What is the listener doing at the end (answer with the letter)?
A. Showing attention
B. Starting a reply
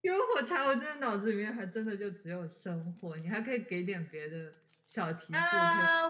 B